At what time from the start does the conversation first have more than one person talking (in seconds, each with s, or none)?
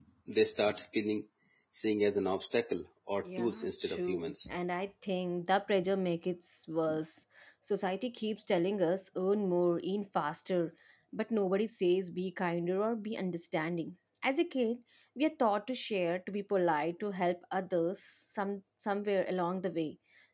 3.2 s